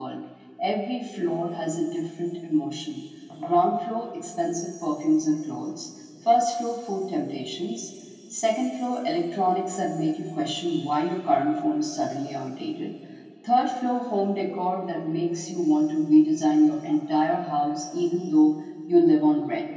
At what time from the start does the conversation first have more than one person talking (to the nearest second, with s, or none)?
none